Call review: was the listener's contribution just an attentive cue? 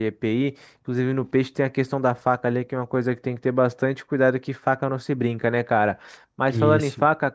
Yes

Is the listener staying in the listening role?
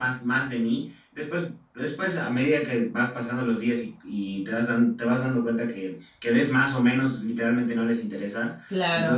Yes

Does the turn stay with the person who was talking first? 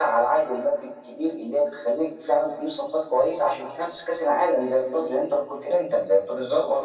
Yes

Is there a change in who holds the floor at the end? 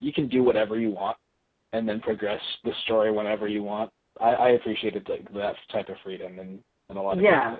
Yes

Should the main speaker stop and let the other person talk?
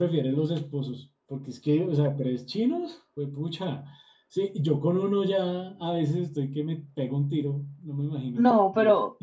Yes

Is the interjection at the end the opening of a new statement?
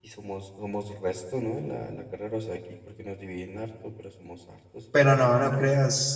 Yes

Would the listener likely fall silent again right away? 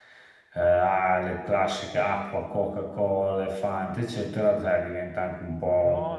No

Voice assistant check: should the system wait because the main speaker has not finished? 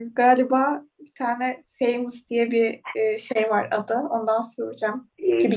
No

